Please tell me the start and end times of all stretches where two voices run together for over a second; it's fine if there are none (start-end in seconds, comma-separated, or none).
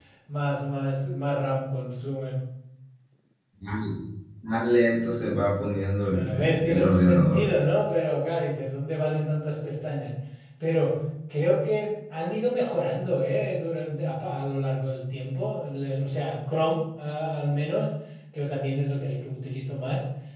6.0-7.5